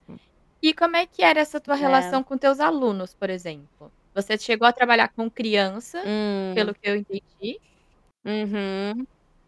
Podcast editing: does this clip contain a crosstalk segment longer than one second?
No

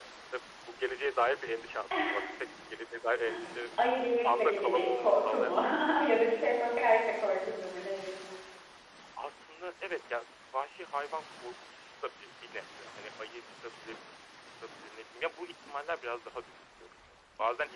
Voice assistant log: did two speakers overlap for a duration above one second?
Yes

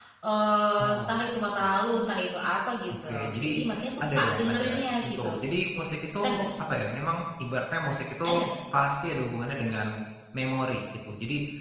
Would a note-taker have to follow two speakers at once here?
Yes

